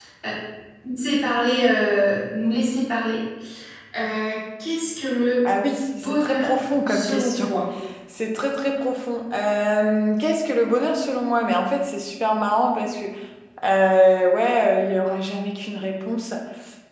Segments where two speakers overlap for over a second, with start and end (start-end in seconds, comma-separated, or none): 6.0-7.5